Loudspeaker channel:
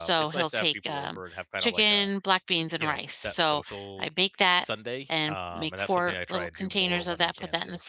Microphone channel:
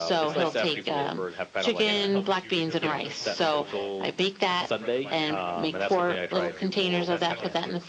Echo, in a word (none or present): present